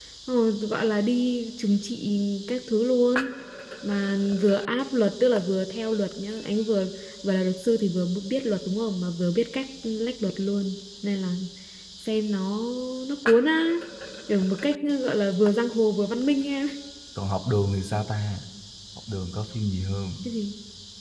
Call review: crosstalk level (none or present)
none